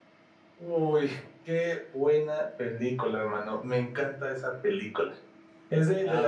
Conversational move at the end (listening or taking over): listening